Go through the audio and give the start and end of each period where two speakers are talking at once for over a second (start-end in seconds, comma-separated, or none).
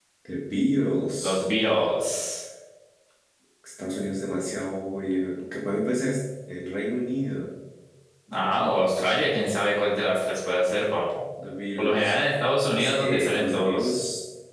12.7-14.0